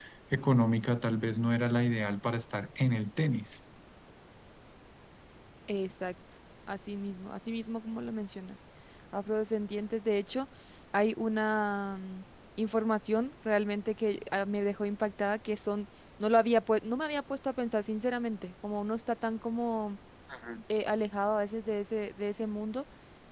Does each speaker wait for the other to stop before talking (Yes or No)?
Yes